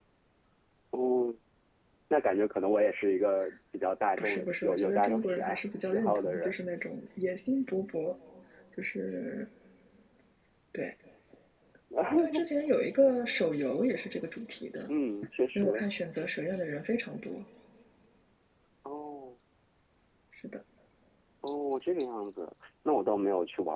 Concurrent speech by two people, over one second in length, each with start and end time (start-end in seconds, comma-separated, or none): 4.2-6.5